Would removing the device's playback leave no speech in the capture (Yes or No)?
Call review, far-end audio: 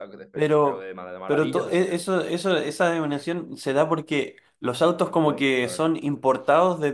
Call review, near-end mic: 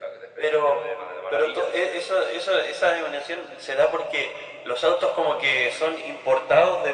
Yes